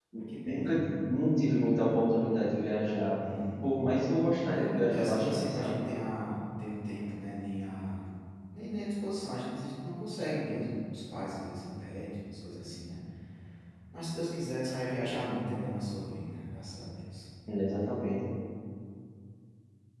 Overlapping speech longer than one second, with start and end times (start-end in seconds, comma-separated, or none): 4.5-5.8